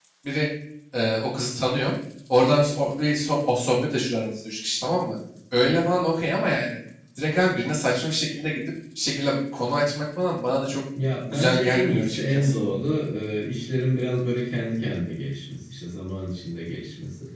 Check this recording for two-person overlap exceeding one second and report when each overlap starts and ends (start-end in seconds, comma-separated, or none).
11.3-12.5